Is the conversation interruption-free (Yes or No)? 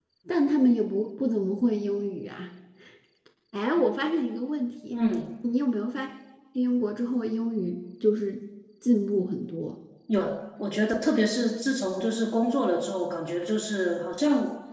Yes